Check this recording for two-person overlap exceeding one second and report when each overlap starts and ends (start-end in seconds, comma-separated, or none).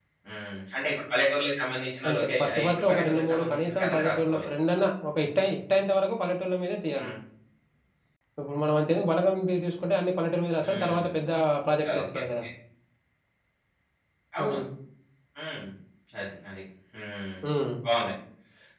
2.1-4.4